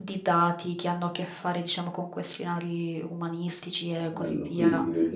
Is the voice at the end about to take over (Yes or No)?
Yes